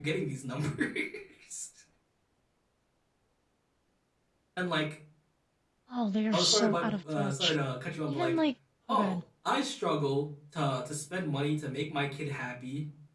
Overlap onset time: 6.3 s

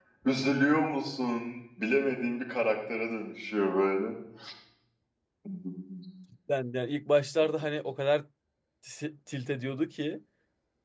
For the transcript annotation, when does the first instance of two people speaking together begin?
none

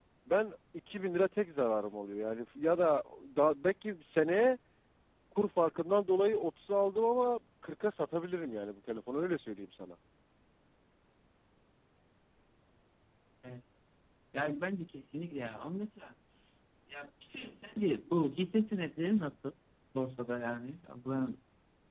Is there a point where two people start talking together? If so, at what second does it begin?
none

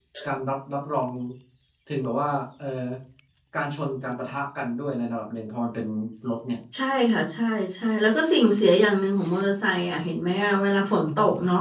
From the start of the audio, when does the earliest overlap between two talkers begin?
none

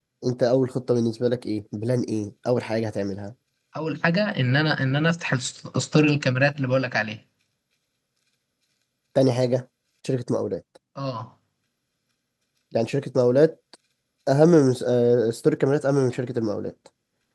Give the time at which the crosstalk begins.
none

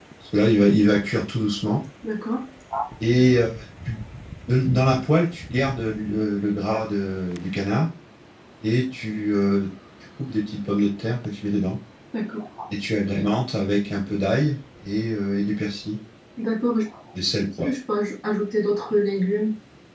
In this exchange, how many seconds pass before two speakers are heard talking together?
none

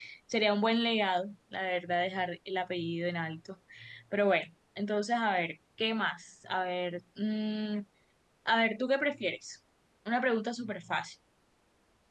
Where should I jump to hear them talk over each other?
none

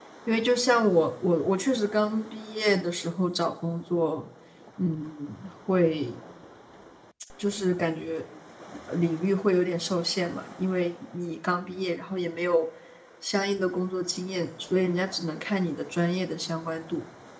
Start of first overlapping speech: none

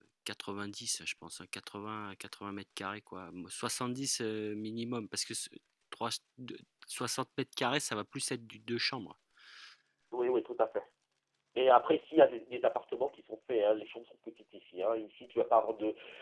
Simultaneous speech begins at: none

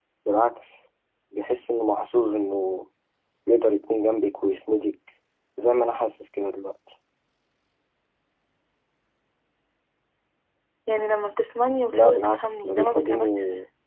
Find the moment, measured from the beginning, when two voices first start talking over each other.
11.9 s

